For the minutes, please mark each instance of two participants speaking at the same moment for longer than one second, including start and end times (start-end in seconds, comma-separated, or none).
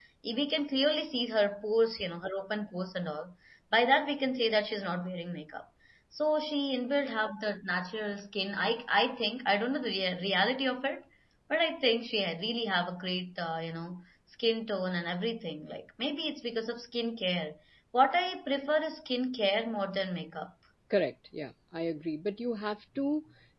none